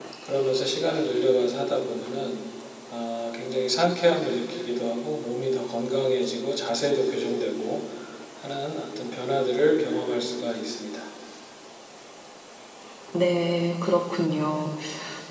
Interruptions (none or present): none